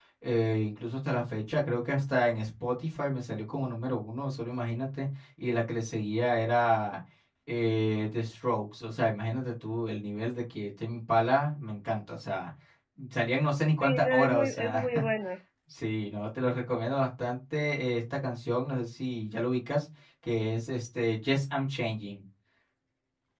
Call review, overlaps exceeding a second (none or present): present